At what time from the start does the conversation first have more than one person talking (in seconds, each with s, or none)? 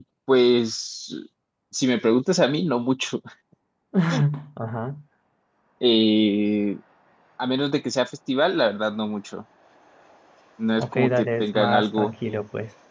10.8 s